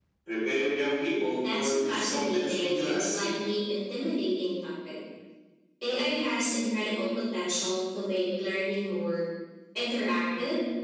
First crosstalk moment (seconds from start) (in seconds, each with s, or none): 1.4 s